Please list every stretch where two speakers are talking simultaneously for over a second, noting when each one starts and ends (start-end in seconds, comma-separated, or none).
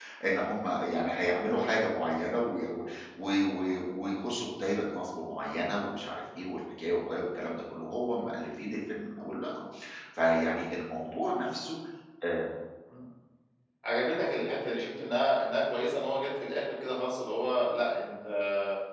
none